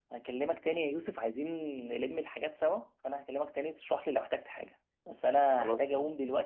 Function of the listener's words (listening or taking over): listening